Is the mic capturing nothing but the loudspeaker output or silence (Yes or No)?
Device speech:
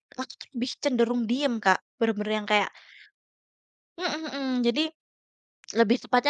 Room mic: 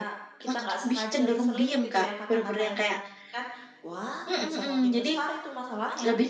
No